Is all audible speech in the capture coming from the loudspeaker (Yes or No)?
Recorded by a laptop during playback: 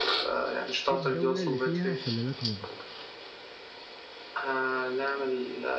No